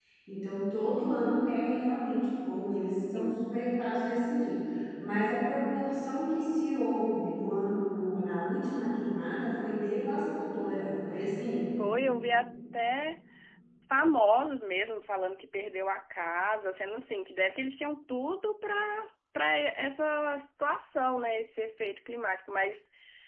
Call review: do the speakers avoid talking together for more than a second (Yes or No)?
Yes